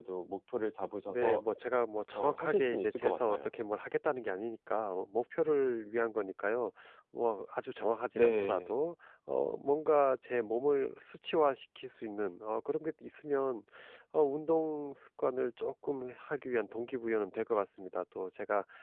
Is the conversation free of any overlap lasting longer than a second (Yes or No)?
No